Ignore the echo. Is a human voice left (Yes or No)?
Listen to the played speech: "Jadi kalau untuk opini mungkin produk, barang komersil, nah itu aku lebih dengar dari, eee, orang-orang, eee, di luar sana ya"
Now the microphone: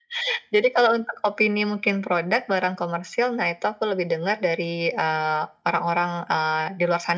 No